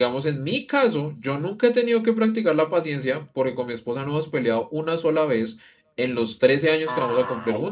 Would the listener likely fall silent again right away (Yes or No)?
No